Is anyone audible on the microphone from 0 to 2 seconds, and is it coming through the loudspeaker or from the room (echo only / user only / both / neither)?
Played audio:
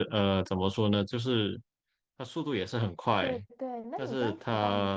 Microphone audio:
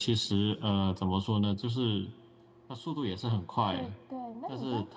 echo only